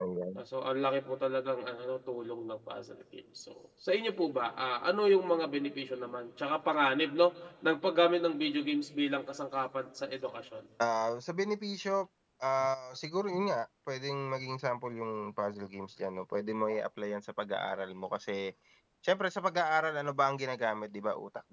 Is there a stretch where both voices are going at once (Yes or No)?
No